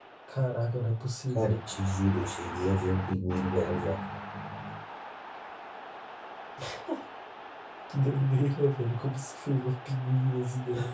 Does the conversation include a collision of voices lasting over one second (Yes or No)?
No